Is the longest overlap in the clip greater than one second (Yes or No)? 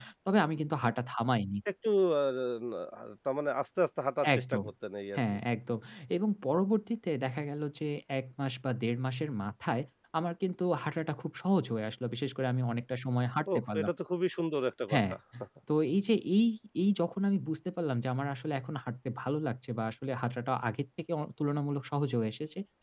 No